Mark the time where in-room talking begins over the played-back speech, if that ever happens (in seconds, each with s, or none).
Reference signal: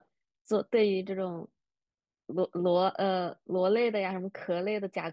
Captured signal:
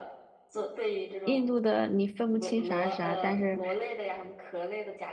1.2 s